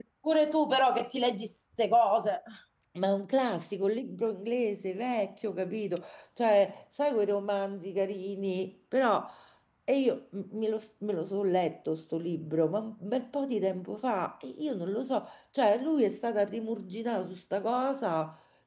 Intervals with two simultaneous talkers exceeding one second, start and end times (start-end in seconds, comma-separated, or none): none